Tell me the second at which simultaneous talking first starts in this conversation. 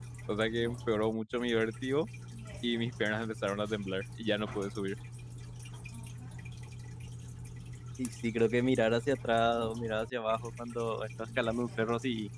none

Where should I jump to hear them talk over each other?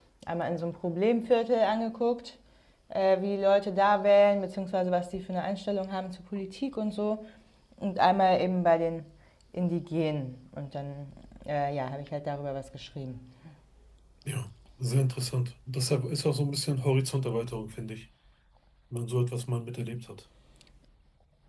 none

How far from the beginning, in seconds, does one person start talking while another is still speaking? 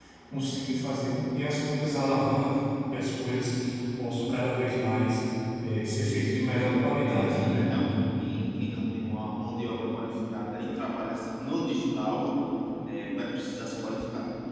6 s

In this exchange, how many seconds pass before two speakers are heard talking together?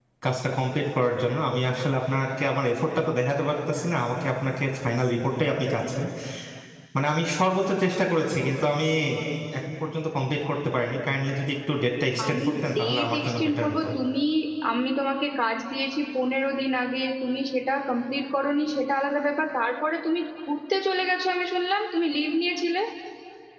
12 s

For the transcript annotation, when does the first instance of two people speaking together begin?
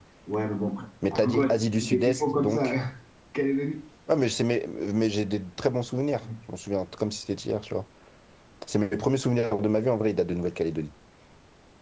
1 s

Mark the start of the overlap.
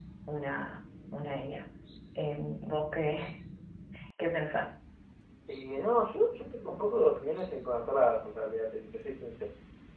none

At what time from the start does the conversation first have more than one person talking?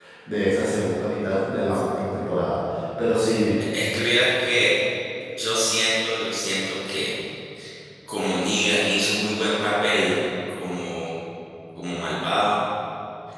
none

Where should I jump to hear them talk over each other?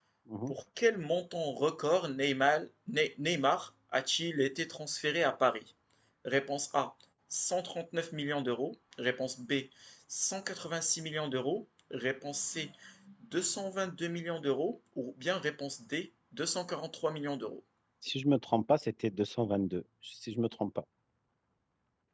none

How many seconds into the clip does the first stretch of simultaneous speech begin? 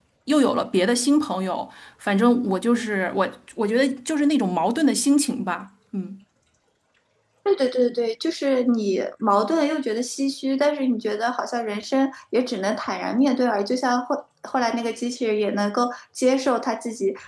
none

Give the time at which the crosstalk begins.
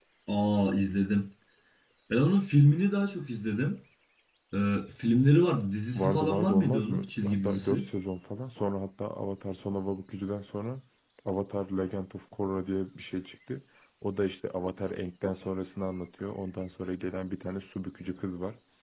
6 s

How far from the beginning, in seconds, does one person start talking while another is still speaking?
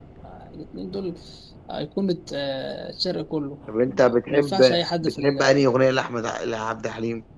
4 s

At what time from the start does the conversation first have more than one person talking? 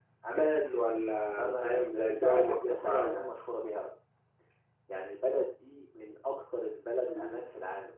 1 s

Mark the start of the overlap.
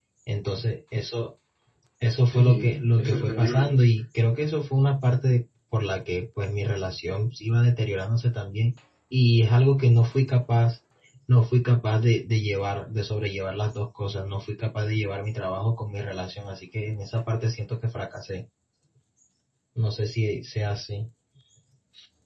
2 s

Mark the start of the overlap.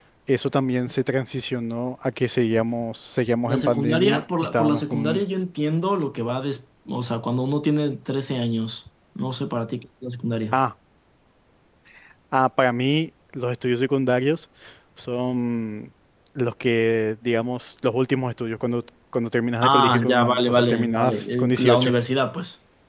3 s

